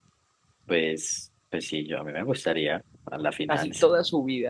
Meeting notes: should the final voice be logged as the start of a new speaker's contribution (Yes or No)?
Yes